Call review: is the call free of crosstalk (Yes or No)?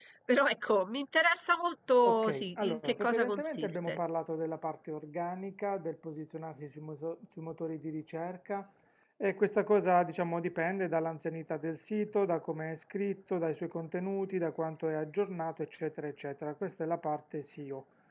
No